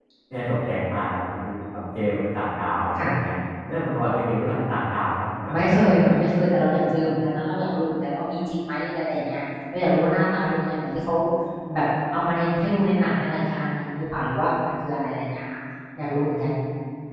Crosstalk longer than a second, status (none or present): none